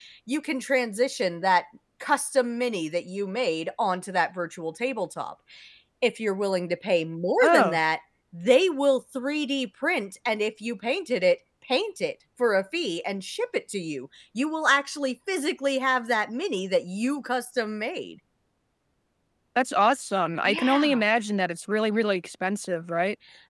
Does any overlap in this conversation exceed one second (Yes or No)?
No